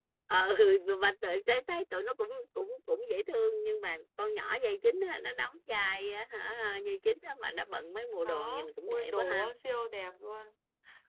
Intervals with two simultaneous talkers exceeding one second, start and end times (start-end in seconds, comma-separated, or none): 8.2-9.5